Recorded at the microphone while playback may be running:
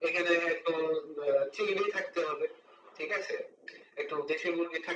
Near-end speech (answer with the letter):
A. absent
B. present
A